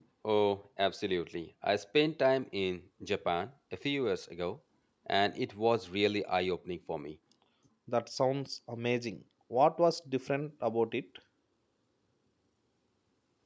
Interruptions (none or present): none